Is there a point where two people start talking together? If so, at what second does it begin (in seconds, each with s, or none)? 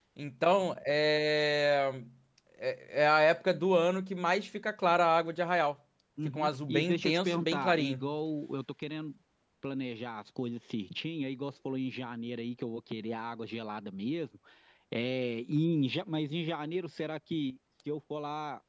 6.2 s